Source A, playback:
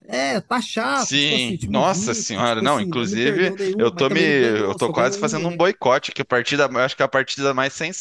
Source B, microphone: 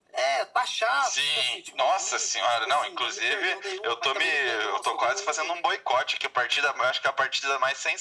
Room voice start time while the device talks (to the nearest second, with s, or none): none